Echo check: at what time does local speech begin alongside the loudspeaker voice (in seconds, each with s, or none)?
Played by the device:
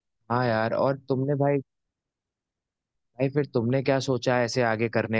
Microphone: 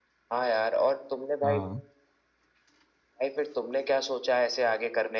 1.4 s